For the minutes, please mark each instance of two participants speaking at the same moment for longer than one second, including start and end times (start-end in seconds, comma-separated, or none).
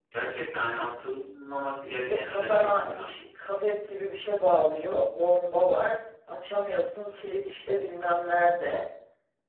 1.8-3.1